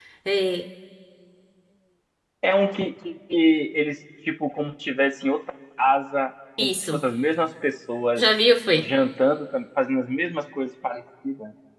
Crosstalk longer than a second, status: none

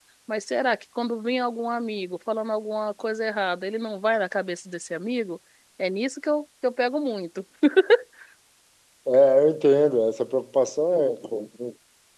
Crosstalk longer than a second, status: none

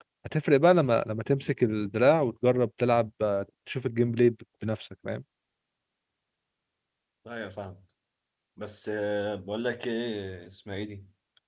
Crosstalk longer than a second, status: none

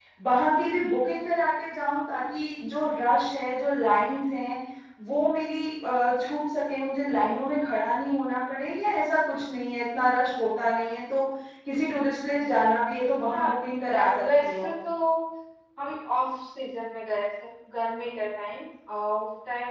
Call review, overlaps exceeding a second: present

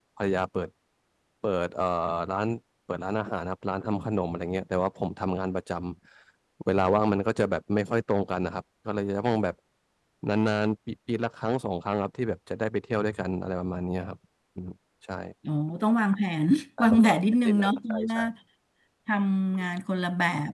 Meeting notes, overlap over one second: present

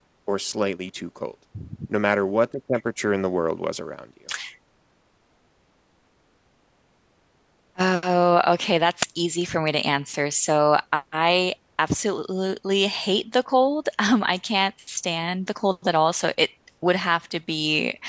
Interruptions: none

